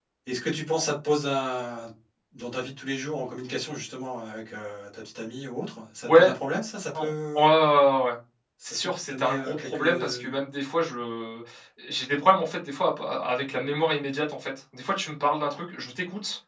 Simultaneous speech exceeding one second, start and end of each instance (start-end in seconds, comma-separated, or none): 8.6-10.4